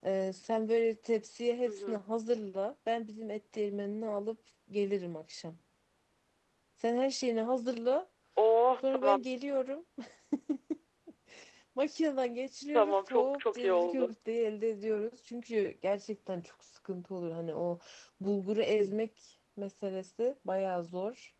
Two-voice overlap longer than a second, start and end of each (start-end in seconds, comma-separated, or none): 12.7-14.1